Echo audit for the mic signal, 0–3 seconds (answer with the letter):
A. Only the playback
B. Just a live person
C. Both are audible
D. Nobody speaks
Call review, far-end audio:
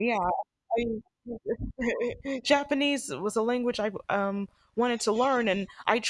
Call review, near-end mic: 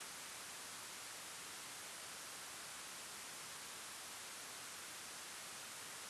D